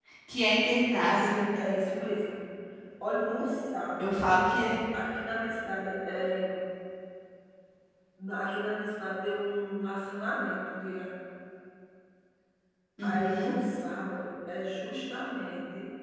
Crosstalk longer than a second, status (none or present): none